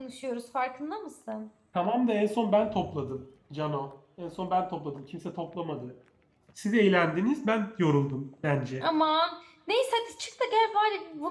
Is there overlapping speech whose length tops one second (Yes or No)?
No